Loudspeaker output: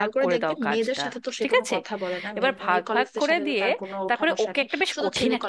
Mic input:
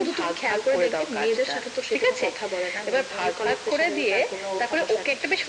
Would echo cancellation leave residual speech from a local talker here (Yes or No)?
No